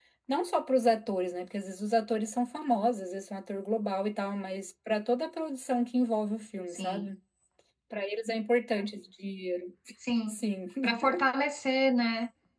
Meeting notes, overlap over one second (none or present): none